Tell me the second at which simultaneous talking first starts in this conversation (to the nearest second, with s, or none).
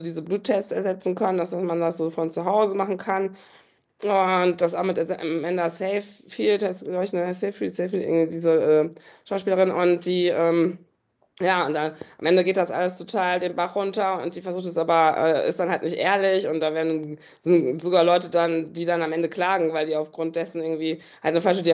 none